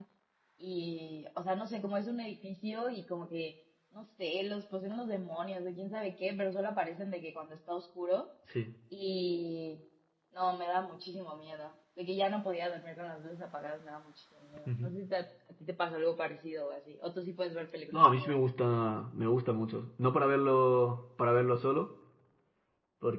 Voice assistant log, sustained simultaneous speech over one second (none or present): none